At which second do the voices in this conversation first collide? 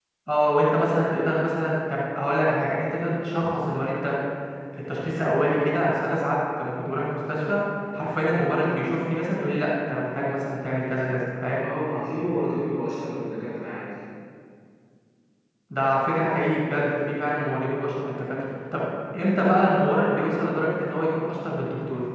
none

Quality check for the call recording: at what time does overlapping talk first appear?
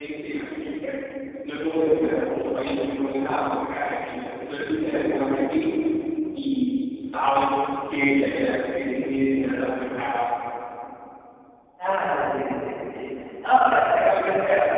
none

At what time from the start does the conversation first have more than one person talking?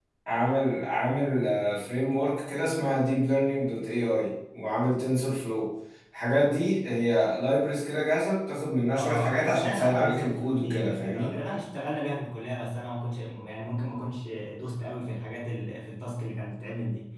9 s

